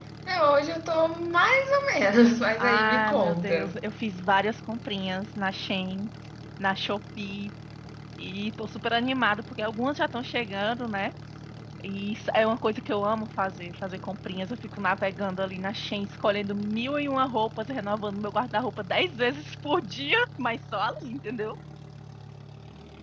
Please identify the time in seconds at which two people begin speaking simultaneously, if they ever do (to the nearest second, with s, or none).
3 s